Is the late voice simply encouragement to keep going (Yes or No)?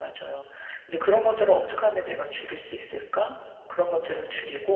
Yes